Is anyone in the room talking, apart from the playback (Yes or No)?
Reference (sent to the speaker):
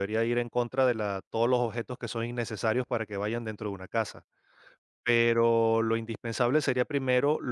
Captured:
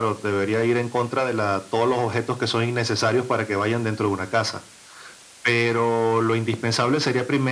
No